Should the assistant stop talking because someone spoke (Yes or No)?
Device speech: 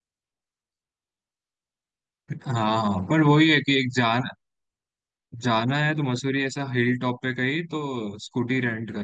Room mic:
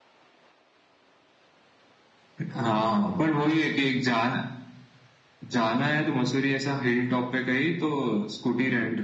No